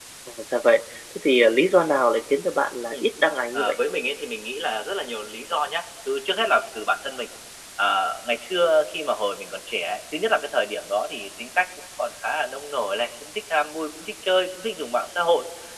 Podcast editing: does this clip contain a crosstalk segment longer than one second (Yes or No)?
No